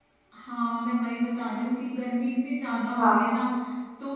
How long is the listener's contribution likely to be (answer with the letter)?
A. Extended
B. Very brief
B